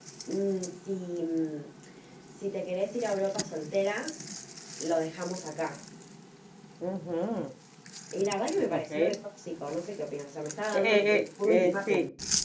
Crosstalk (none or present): present